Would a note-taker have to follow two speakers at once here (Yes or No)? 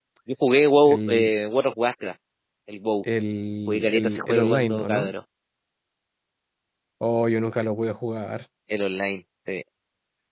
Yes